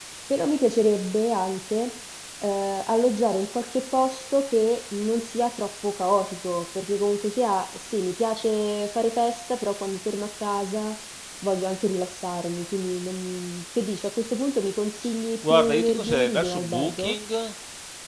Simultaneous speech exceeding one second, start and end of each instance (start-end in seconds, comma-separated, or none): 15.5-17.2